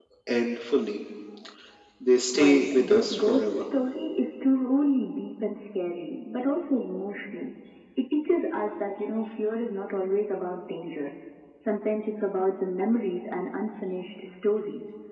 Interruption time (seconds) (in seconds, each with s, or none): 2.3 s